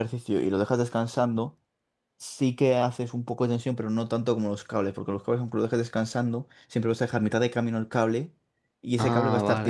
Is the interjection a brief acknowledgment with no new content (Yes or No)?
No